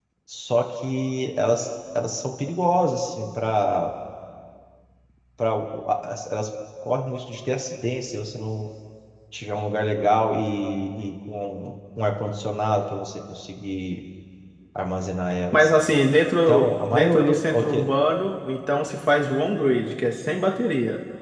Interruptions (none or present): present